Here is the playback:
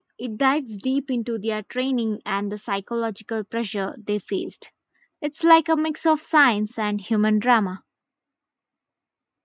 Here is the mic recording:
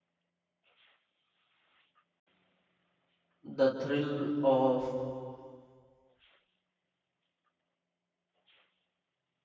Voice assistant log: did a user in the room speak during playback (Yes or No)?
Yes